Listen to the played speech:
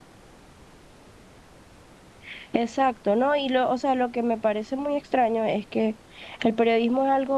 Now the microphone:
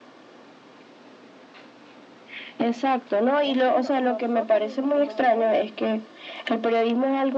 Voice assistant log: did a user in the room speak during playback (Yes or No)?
Yes